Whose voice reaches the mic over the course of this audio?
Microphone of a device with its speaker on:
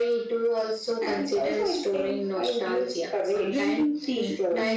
both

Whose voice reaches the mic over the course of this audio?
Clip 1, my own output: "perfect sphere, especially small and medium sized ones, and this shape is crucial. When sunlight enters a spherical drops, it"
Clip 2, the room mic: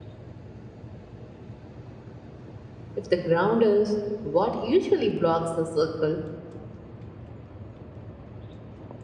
user only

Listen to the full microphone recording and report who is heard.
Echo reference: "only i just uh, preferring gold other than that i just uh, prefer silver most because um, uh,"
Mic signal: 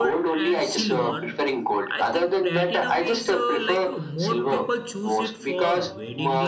both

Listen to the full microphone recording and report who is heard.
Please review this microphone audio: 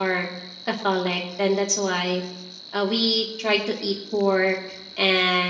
user only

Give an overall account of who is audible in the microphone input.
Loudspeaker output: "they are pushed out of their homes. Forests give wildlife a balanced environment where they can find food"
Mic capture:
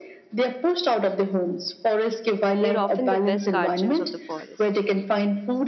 both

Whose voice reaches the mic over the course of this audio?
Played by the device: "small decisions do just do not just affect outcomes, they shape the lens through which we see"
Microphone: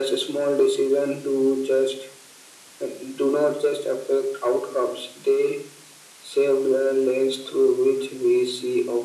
echo only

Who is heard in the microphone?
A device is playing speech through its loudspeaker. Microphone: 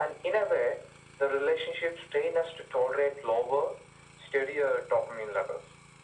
echo only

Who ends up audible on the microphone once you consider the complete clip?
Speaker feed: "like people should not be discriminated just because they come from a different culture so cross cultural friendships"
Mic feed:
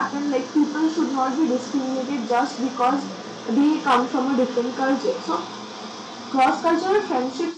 echo only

